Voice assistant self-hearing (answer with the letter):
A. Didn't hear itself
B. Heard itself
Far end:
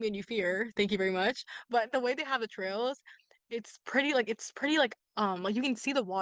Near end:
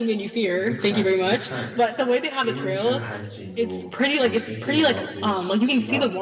B